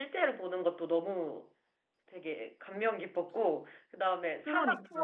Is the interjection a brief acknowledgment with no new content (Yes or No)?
Yes